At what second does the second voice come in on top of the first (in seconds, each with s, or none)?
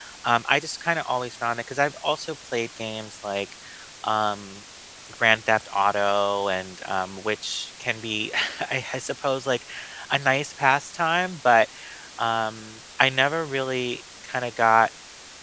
none